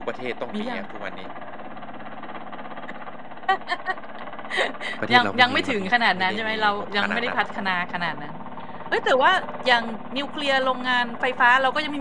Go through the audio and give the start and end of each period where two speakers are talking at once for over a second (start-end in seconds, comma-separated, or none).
5.1-7.4